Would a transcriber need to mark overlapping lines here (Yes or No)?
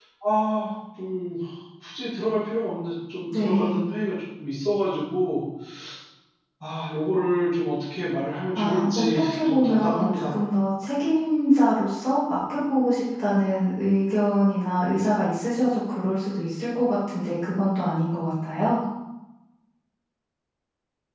Yes